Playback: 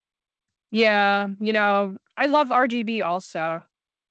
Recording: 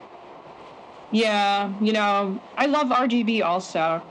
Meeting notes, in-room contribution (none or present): none